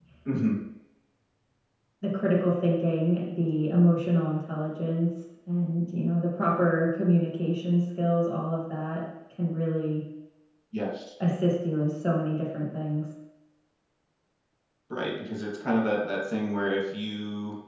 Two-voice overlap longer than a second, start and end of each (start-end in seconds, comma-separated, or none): none